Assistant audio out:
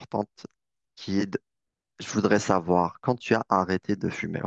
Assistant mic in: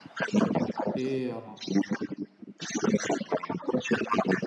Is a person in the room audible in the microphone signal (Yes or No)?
Yes